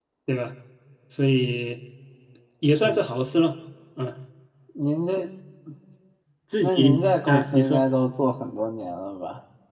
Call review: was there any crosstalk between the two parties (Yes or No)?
Yes